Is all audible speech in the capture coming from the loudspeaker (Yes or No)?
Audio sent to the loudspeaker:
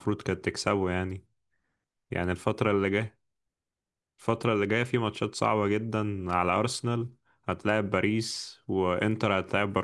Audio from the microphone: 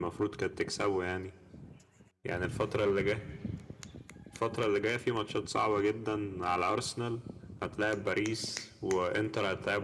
Yes